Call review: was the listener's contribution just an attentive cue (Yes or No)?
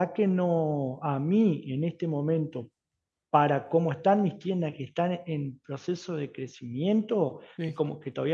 Yes